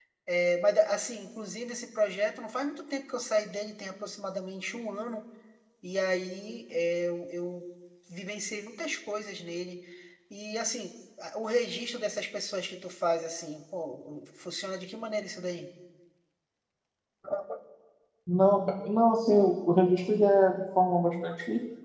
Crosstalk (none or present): none